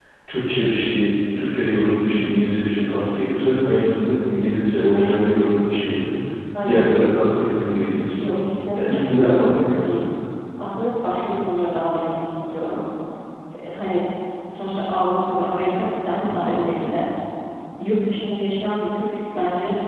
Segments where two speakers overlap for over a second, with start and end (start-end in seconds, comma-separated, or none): 8.7-10.0